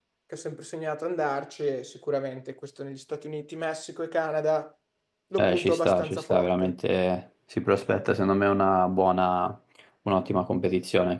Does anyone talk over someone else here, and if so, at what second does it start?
5.4 s

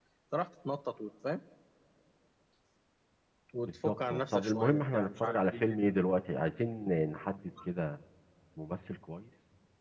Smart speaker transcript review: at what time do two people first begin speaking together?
3.6 s

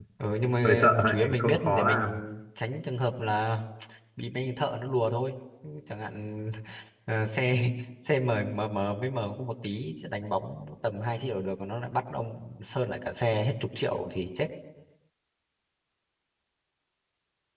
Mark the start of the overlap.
0.6 s

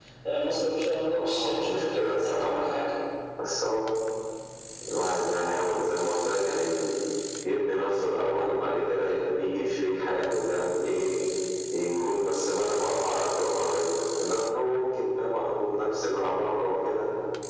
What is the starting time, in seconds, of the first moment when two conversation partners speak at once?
1.1 s

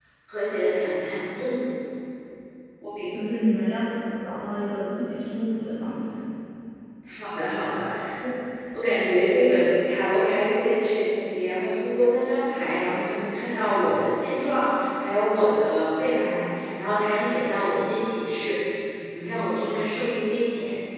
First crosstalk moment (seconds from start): none

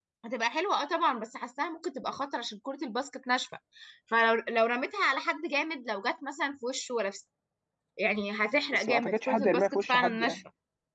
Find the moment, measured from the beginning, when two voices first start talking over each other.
8.7 s

